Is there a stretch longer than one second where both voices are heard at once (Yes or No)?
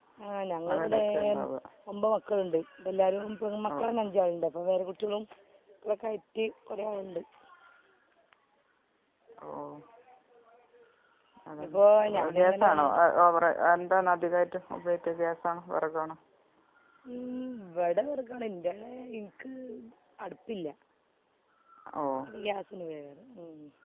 Yes